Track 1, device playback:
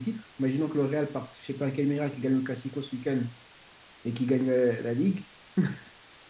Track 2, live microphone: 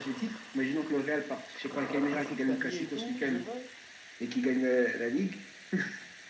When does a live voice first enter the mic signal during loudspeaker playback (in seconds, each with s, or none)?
1.9 s